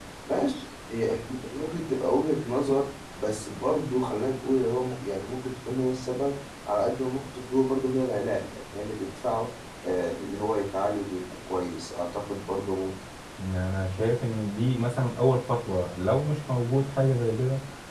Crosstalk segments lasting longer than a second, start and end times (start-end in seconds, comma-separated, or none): none